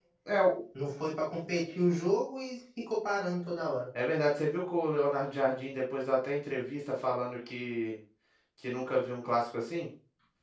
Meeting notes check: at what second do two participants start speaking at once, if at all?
none

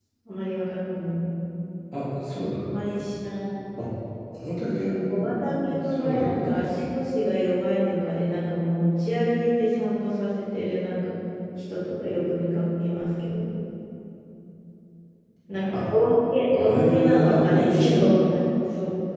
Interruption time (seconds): 5 s

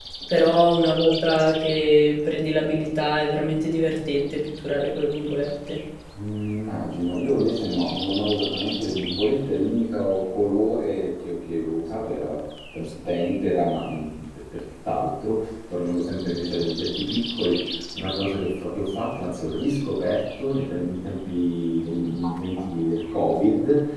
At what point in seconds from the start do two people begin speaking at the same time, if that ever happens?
none

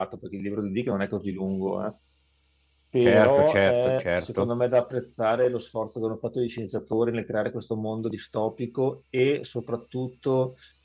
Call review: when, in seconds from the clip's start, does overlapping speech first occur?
3 s

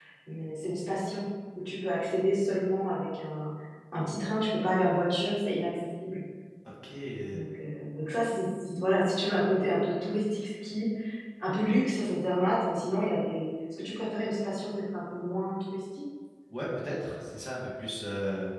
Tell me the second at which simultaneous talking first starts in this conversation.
none

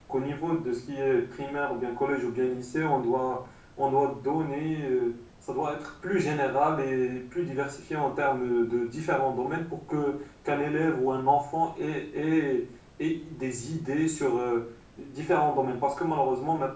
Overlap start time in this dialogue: none

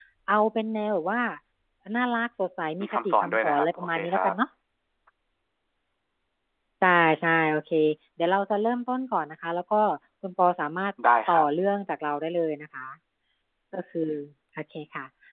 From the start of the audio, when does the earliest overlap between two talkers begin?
3 s

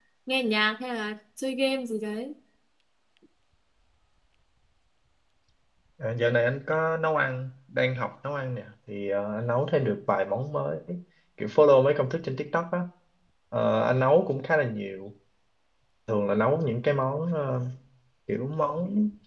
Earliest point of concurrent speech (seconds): none

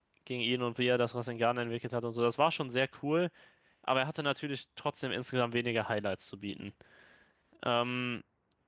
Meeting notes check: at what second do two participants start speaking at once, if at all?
none

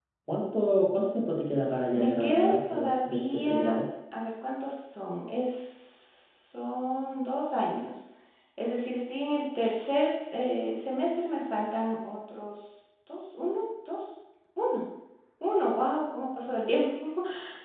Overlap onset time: 2 s

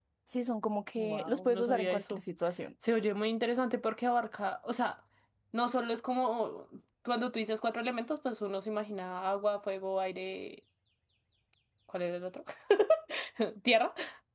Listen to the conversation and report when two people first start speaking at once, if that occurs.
1 s

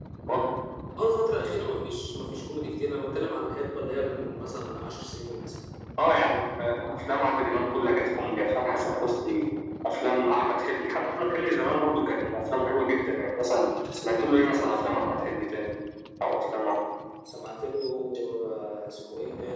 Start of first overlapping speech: none

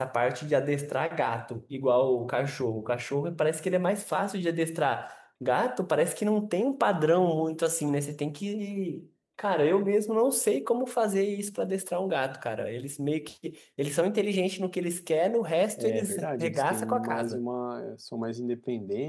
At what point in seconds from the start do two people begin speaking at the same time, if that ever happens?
16 s

